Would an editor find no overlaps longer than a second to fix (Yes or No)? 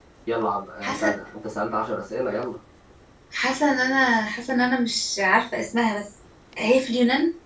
Yes